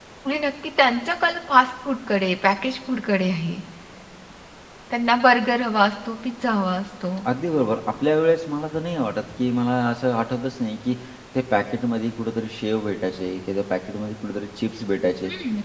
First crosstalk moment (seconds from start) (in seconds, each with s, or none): none